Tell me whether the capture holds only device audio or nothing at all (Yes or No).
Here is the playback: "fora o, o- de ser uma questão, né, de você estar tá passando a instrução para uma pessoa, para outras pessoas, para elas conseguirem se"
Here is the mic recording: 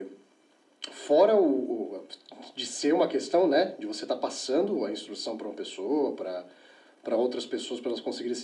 Yes